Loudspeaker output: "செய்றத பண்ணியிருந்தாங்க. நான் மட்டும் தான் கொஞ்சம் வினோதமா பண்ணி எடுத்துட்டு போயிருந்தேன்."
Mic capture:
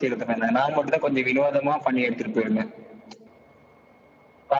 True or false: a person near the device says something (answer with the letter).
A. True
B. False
B